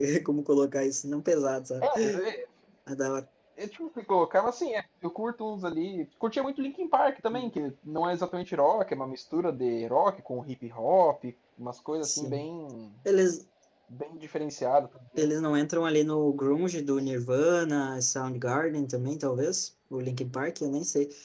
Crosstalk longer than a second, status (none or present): none